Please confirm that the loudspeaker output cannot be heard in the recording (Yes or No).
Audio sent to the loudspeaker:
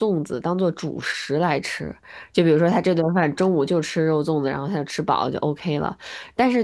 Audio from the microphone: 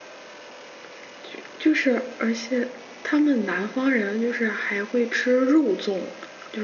Yes